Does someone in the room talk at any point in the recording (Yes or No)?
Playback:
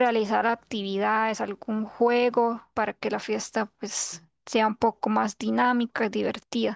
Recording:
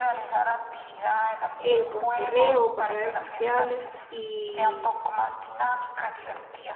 Yes